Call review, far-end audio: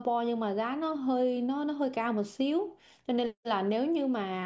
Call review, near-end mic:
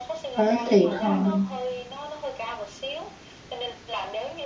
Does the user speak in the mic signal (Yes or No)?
Yes